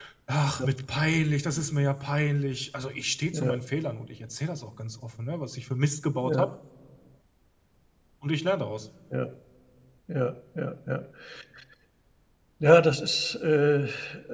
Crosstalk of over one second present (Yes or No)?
No